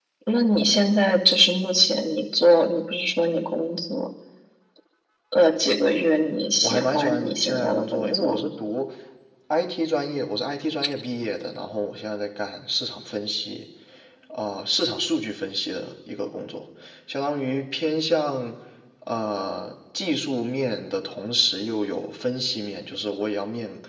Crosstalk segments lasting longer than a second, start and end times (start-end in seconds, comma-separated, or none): 6.6-8.5